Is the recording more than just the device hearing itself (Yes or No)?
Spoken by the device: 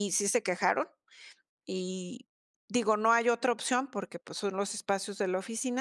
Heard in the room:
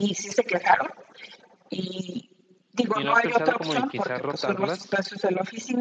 Yes